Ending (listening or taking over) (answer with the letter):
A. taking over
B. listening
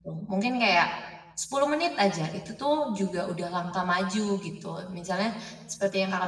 B